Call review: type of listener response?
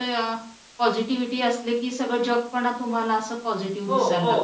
taking over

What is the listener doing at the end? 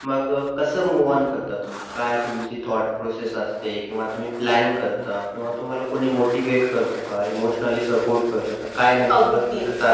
taking over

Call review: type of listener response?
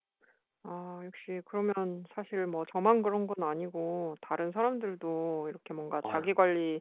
listening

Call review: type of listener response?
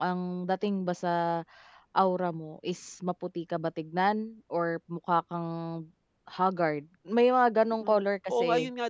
taking over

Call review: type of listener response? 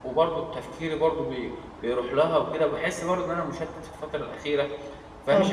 listening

